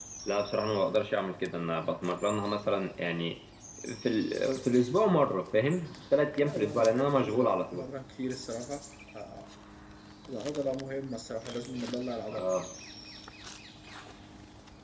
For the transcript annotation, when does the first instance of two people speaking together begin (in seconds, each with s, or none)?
6.3 s